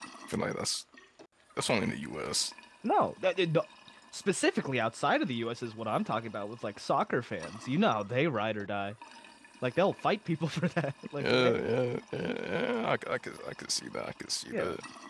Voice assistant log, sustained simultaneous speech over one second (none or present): none